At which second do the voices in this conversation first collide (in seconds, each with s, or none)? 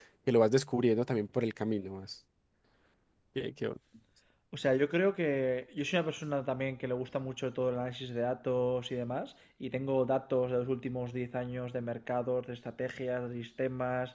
none